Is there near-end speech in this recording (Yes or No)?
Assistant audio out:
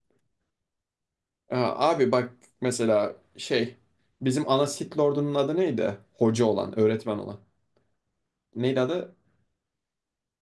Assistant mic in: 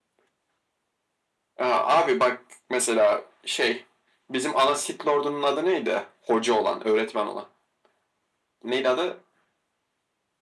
No